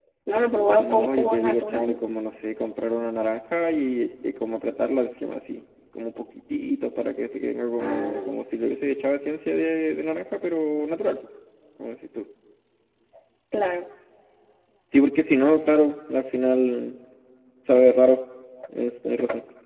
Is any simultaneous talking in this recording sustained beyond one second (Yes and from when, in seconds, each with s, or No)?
Yes, from 0.8 s